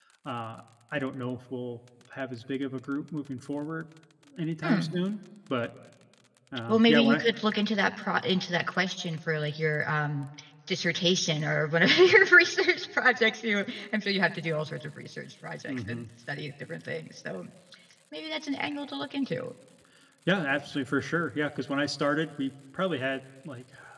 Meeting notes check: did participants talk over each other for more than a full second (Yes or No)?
No